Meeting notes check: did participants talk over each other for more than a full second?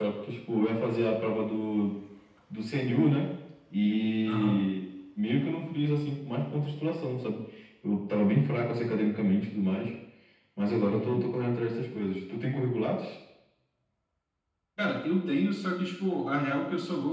No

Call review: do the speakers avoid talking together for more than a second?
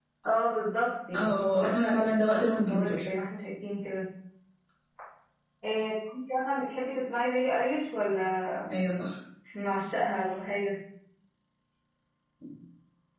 No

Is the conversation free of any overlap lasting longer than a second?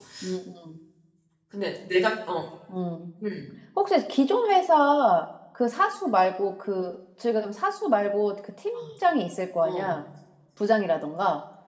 Yes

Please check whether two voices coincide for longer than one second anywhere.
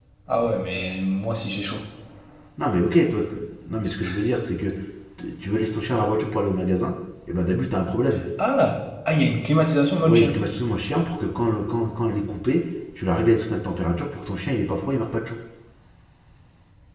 No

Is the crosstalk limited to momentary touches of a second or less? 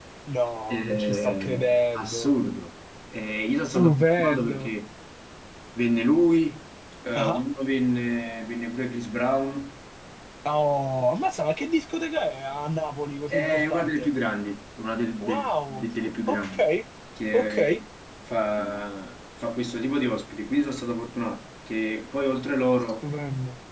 No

